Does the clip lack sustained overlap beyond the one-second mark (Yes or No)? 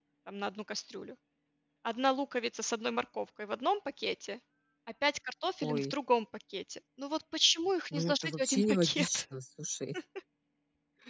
No